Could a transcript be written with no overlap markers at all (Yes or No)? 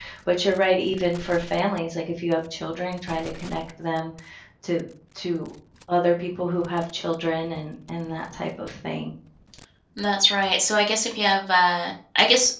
Yes